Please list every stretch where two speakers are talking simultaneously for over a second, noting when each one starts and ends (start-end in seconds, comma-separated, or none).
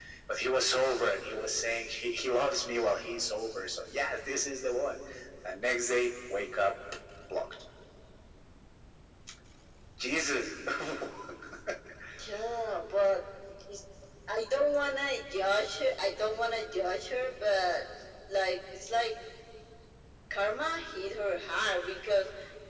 none